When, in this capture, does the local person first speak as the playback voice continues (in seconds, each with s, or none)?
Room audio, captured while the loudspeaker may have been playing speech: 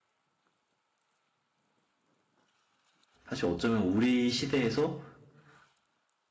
3.3 s